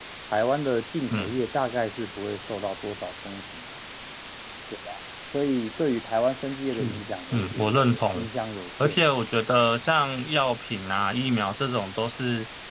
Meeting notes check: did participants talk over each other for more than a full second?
Yes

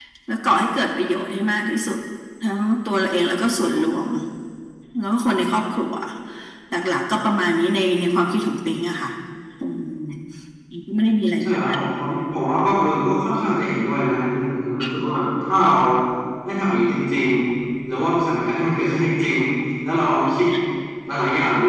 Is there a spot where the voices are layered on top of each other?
No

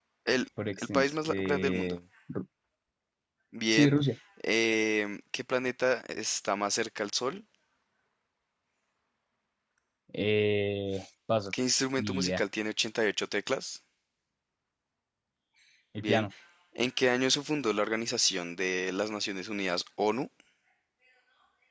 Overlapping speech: Yes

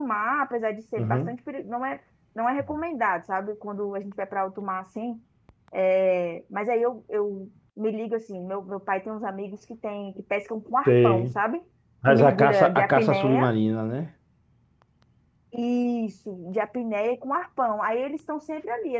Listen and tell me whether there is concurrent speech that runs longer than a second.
Yes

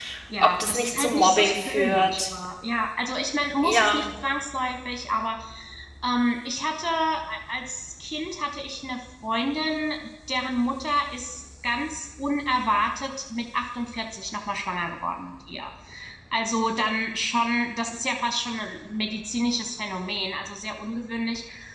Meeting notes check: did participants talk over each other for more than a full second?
Yes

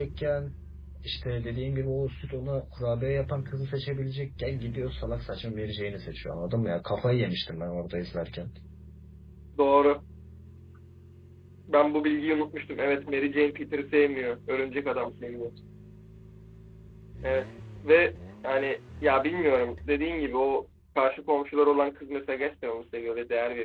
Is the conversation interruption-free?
Yes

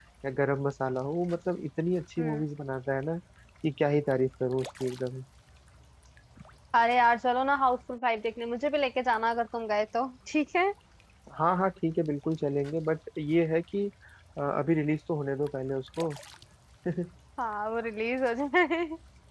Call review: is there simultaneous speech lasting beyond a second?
No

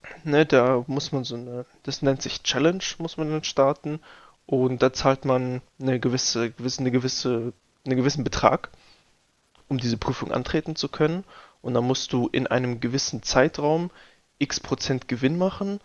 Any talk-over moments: No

